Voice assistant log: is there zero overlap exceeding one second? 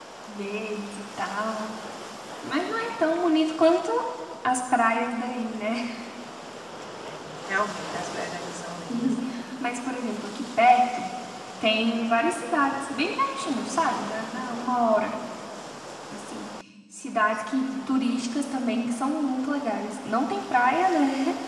Yes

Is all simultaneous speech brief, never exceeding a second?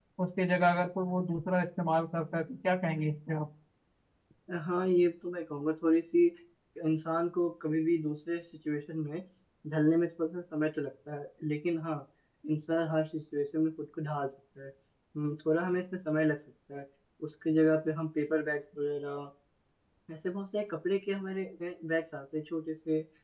Yes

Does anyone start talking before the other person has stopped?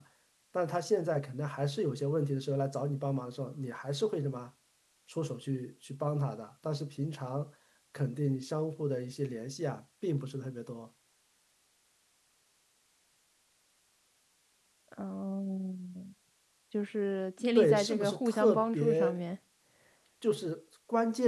Yes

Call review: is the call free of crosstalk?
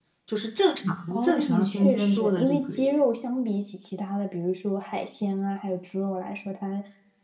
No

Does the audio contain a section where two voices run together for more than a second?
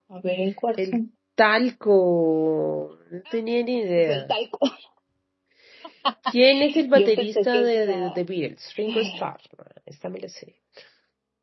Yes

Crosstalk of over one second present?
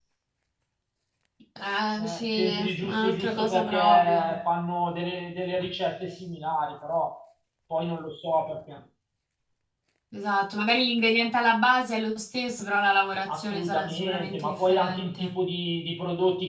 Yes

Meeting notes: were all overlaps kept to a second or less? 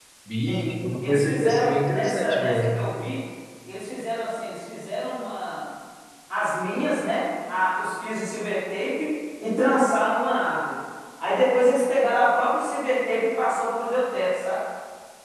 No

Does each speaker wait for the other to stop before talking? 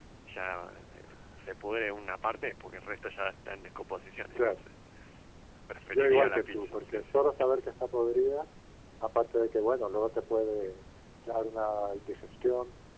No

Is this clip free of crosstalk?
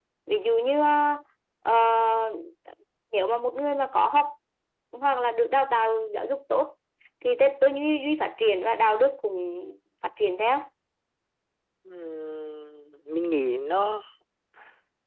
Yes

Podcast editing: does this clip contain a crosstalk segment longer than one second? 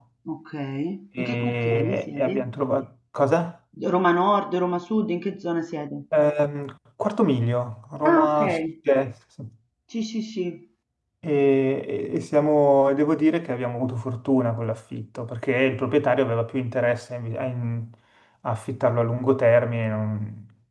Yes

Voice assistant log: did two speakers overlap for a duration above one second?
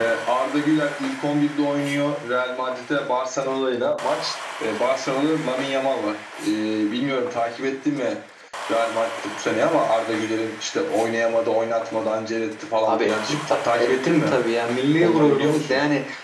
Yes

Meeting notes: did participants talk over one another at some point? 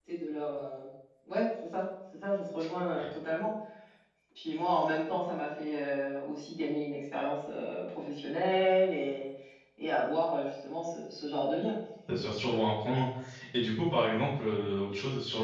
No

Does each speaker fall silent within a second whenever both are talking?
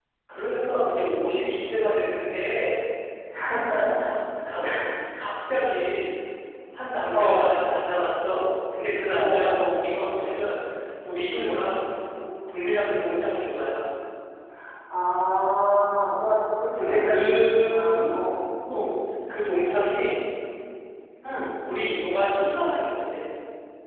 No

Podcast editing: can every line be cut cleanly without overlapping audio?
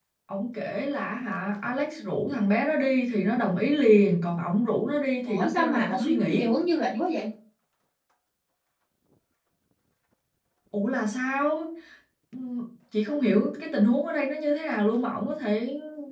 No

